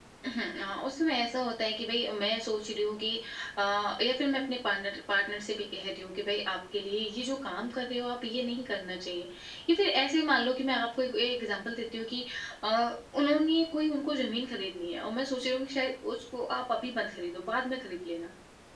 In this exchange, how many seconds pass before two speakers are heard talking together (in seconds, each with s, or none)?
none